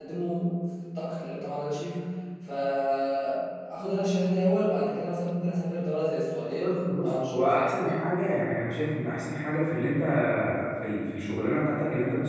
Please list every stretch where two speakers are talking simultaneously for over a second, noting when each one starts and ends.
6.6-7.9

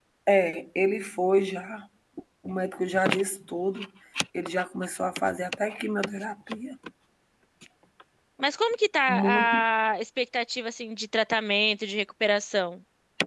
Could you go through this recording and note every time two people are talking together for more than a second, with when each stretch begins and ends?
none

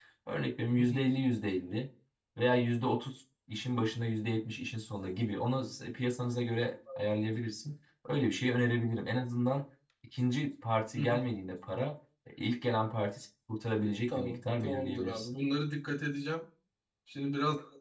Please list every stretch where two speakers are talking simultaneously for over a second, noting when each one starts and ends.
14.1-15.3

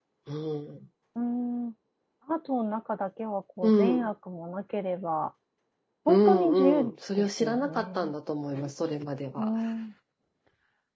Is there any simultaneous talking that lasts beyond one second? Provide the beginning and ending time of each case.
6.1-8.1

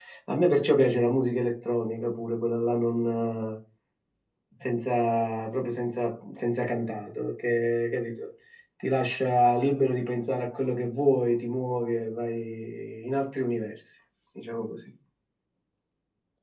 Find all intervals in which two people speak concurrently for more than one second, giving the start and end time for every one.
none

